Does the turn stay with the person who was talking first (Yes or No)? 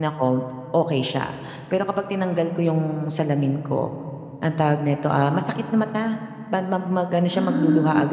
Yes